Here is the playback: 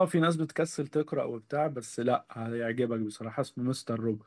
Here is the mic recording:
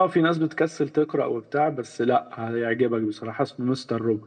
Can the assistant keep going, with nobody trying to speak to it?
Yes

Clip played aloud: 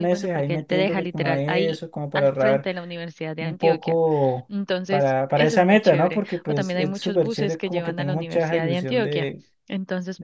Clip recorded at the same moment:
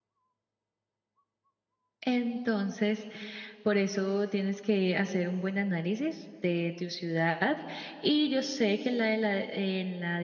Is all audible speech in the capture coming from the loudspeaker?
No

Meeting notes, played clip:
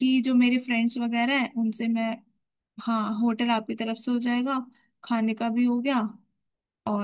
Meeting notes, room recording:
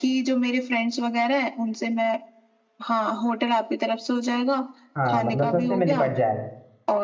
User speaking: Yes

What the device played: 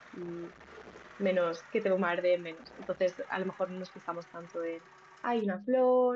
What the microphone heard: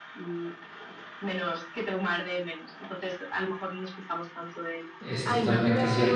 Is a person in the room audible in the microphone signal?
Yes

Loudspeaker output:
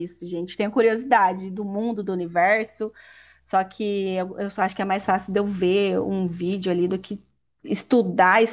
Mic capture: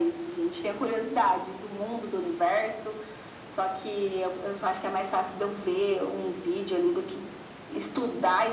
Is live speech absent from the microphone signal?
Yes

